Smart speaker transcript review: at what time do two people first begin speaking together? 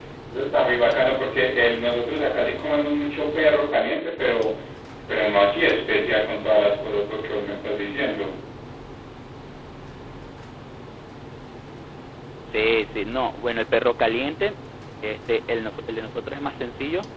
none

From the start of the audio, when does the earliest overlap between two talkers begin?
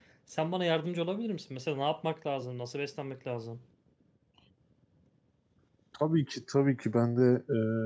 none

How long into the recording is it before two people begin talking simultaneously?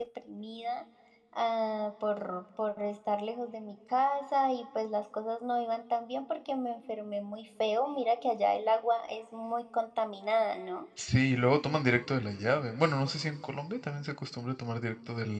none

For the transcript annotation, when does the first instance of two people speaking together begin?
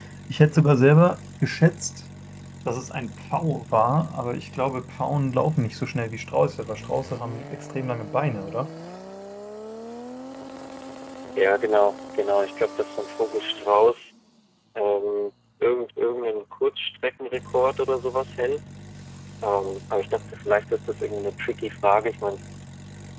none

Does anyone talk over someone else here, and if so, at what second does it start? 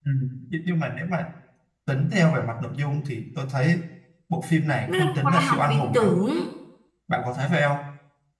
4.9 s

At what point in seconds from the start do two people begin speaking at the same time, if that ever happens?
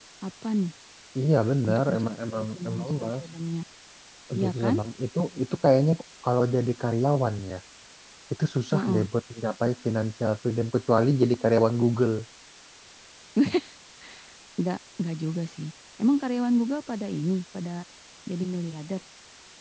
1.7 s

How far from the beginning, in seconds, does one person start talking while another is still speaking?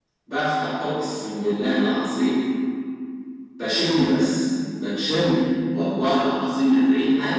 none

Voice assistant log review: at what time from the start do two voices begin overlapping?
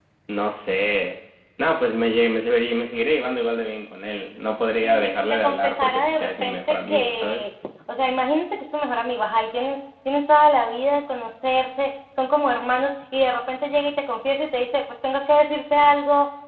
4.8 s

